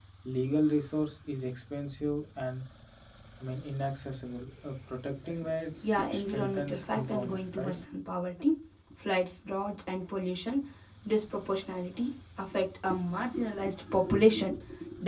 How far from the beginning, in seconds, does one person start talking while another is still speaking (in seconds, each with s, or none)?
5.8 s